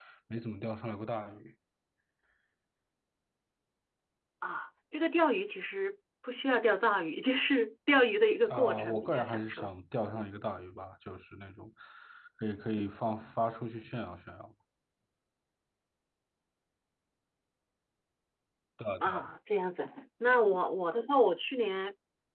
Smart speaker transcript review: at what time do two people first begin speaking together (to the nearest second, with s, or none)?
8 s